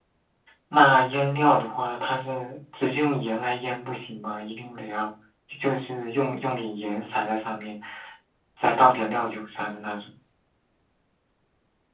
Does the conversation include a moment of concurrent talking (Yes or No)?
No